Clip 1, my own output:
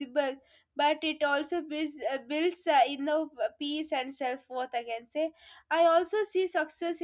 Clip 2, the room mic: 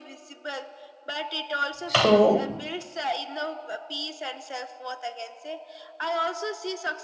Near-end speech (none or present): present